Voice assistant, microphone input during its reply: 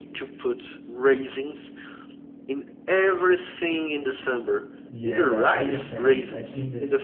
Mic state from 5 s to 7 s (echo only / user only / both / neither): both